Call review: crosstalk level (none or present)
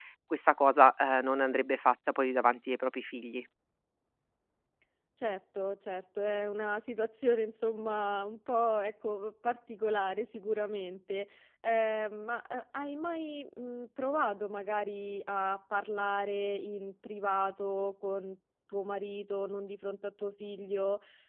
none